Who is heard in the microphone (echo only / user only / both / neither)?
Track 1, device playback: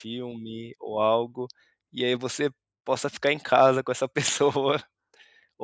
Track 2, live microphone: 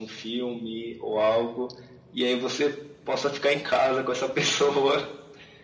echo only